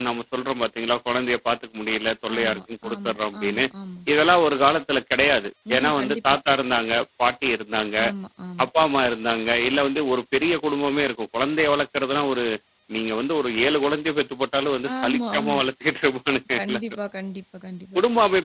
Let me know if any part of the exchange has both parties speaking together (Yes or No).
Yes